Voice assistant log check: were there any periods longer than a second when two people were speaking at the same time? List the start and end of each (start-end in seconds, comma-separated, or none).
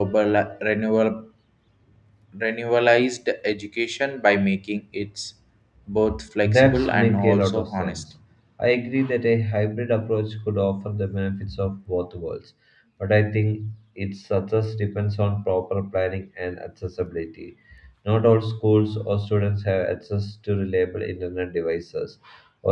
6.4-8.0